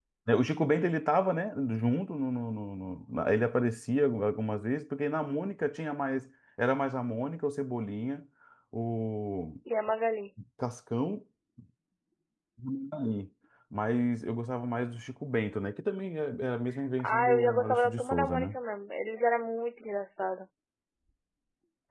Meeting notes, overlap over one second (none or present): present